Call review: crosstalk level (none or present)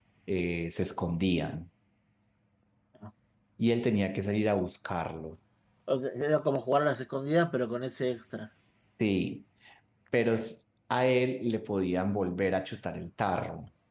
none